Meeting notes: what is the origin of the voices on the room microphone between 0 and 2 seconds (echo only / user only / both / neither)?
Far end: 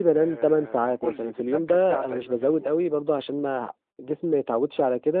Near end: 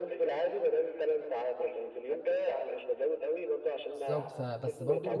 echo only